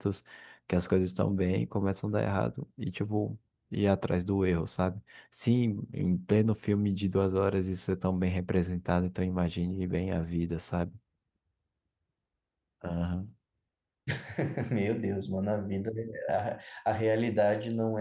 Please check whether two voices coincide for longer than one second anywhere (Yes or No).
No